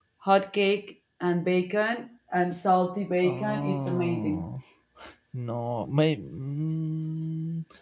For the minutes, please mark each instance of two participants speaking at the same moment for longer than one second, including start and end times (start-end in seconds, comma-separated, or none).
3.2-4.4